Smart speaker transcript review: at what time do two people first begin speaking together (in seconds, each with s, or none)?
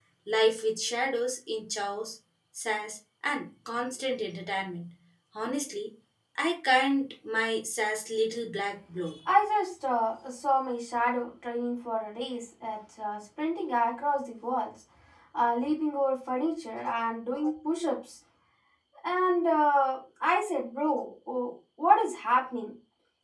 none